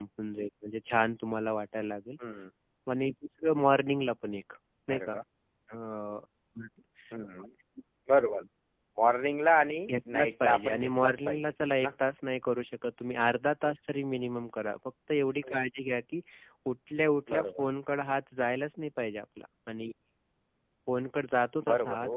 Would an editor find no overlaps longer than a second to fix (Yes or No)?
No